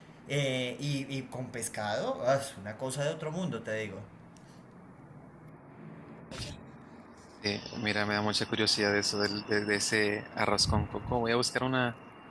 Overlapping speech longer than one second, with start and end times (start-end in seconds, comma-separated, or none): none